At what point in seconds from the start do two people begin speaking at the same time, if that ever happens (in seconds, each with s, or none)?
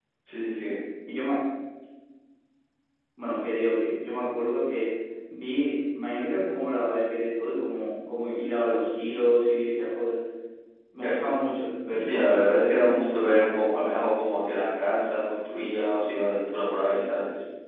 11.9 s